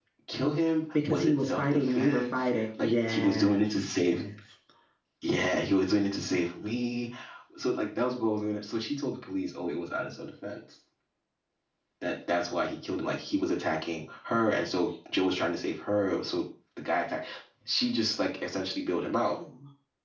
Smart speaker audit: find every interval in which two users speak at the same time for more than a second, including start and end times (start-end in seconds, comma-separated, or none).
1.1-4.2